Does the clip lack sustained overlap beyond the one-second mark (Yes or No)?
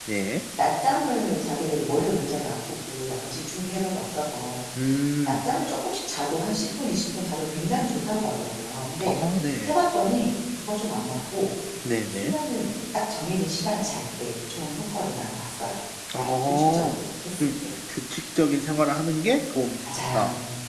Yes